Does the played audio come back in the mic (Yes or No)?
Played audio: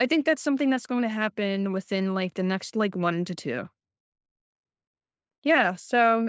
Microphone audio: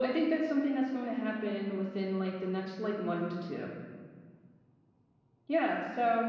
Yes